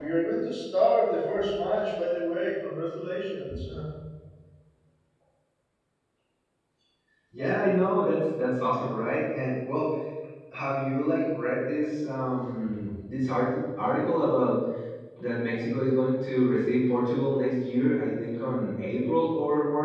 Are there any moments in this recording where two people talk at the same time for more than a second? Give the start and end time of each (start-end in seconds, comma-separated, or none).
none